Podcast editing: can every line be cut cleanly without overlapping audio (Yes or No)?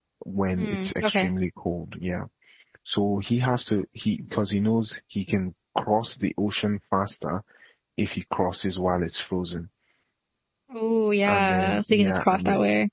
No